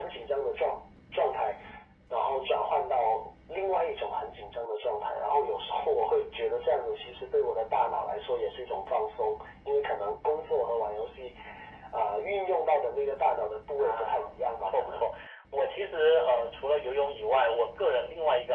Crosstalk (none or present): present